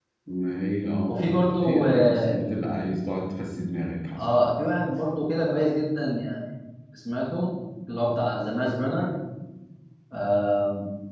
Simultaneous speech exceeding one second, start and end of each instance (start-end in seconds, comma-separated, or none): 1.1-2.3